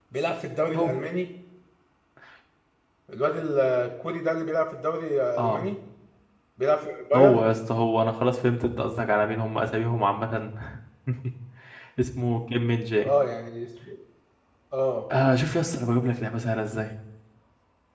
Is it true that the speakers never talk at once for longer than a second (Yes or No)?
Yes